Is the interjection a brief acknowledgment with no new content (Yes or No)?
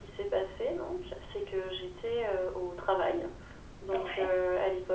Yes